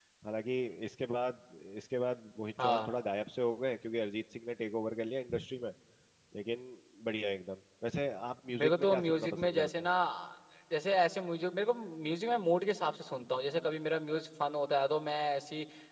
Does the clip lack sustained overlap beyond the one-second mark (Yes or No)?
No